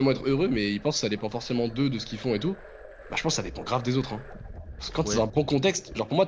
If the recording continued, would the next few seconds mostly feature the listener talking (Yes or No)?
No